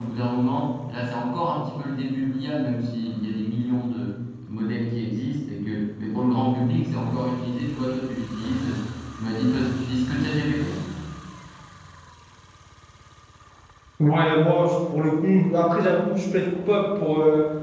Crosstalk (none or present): none